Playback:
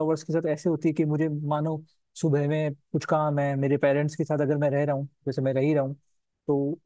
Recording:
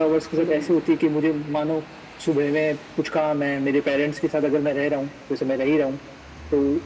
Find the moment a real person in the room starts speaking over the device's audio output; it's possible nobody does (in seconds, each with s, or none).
0.4 s